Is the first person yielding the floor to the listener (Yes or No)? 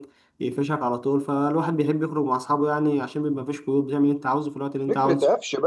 Yes